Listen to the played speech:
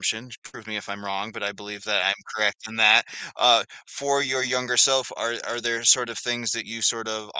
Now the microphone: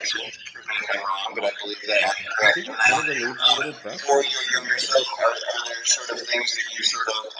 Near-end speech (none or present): present